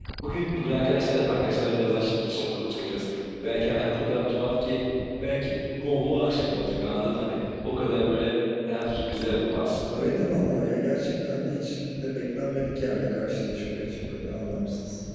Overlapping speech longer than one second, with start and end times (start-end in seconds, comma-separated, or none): none